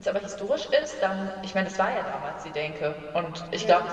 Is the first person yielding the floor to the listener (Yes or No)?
No